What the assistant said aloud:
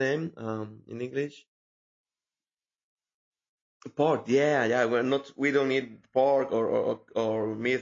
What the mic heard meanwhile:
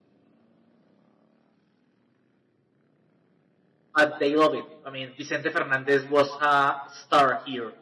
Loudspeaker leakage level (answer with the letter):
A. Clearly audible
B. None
B